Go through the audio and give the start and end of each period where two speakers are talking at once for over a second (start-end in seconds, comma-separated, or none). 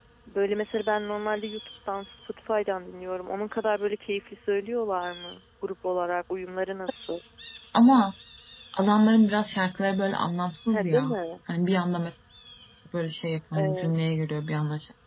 none